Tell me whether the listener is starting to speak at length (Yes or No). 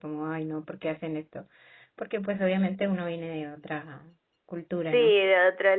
Yes